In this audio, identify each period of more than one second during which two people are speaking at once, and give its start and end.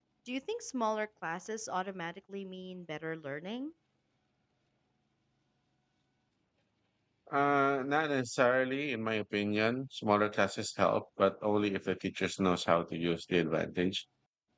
none

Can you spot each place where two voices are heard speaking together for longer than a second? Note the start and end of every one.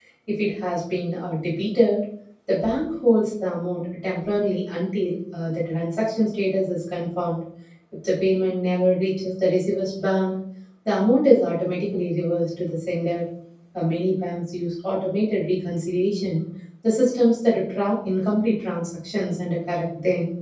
none

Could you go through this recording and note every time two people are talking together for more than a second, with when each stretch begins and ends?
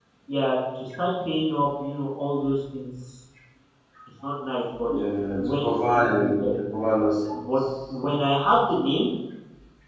none

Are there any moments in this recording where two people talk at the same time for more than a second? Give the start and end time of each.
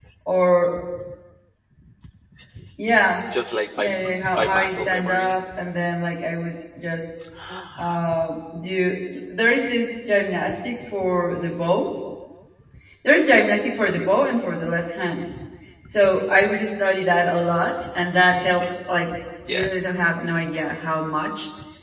3.8-5.4

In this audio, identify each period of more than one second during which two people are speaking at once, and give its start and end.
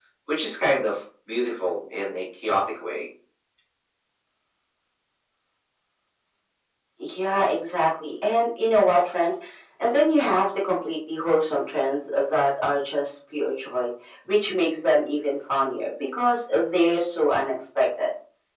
none

